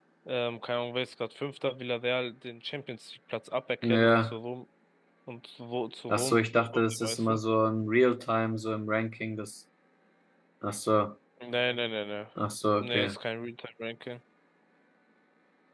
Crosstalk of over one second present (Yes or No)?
Yes